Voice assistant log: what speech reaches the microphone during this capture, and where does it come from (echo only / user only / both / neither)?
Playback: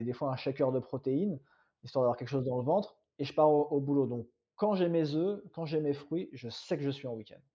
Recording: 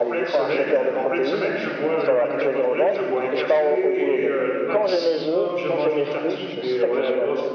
both